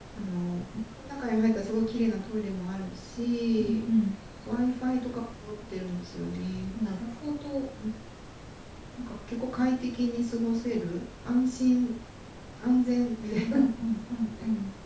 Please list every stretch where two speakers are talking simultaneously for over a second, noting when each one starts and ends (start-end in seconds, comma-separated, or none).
none